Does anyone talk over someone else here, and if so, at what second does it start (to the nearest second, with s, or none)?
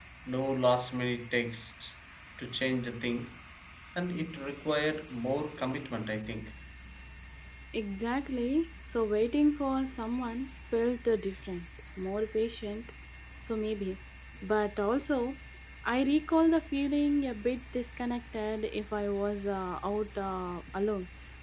none